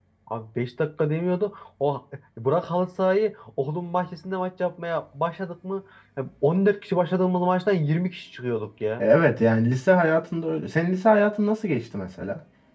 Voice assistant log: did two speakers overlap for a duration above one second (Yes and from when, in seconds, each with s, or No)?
No